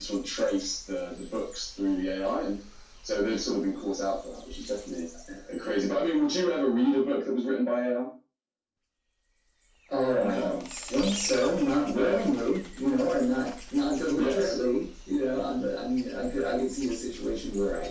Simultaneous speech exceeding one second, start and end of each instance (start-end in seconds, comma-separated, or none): none